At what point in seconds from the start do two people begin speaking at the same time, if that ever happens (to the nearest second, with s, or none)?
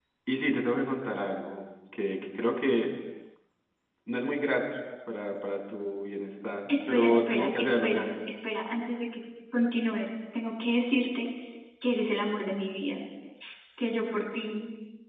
7 s